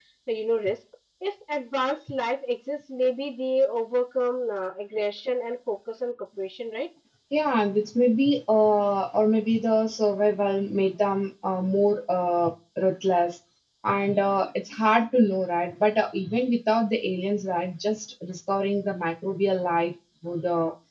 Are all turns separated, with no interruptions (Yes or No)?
Yes